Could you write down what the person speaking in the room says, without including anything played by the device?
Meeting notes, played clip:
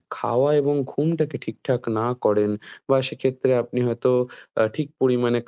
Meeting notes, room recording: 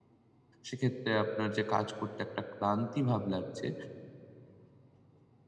সেক্ষেত্রে আপনার যে কাজ করতে একটা ক্লান্তি ভাব লাগছে,

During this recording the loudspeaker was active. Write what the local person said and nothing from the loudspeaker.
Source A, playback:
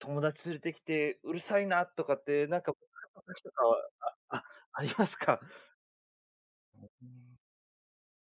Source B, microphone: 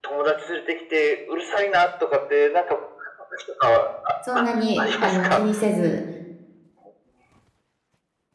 そんなにあの気にせず、

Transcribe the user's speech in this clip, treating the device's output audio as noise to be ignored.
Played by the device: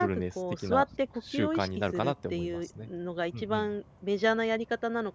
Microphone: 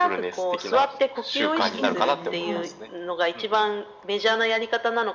あ、そうですね、はい。

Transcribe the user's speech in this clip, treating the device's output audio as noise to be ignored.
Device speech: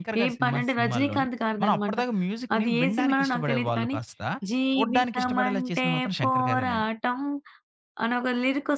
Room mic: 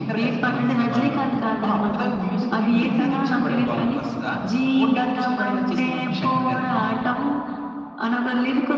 none

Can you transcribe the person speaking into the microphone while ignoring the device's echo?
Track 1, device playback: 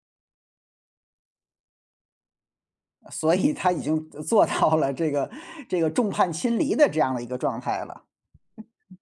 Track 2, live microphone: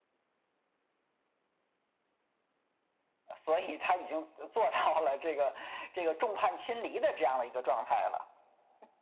none

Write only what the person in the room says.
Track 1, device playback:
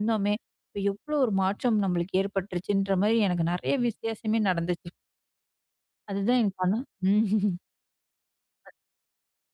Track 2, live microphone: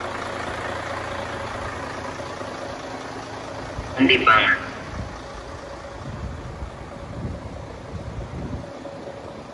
கண்டிப்பாங்க.

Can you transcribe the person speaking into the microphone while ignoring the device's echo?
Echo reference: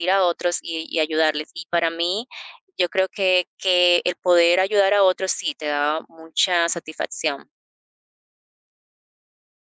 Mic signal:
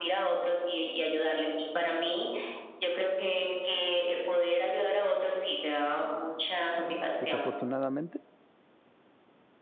desafortunadamente.

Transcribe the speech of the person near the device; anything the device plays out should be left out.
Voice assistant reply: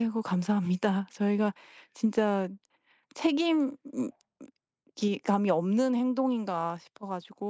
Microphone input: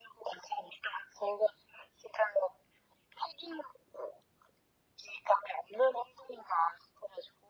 none

